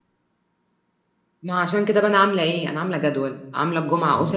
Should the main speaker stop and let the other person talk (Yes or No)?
No